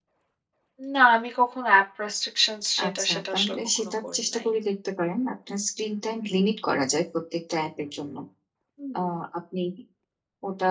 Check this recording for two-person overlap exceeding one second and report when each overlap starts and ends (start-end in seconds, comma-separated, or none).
2.9-4.5